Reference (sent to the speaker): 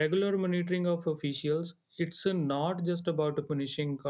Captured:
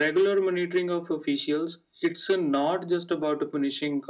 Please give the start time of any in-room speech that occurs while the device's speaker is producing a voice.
none

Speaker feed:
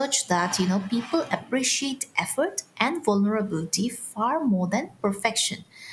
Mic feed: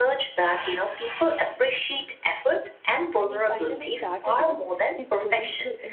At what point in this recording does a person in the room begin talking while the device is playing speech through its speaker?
3 s

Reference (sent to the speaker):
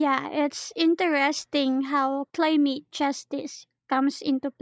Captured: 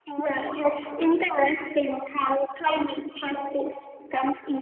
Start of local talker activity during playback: none

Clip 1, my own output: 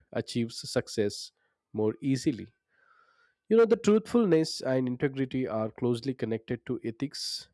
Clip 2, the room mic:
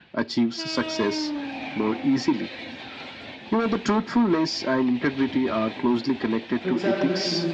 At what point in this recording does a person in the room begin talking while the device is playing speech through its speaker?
7 s

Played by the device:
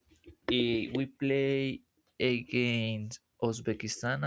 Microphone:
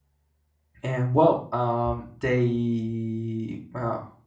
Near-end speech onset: 1 s

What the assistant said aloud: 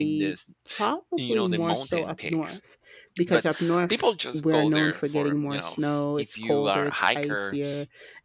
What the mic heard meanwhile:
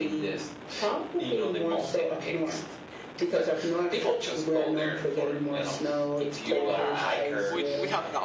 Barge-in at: 6 s

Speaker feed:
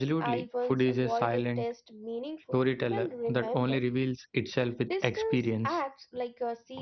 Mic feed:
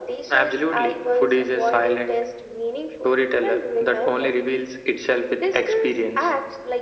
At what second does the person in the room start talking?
none

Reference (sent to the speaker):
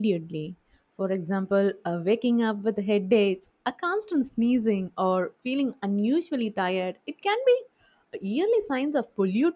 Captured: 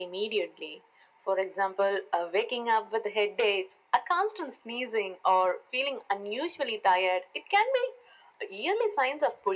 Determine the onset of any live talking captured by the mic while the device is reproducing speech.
none

